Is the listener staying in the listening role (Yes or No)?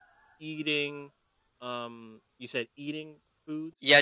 No